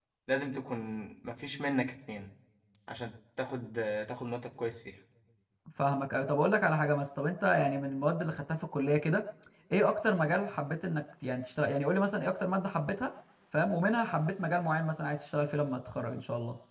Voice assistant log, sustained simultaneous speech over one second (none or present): none